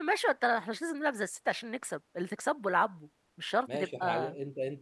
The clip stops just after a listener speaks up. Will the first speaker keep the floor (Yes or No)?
No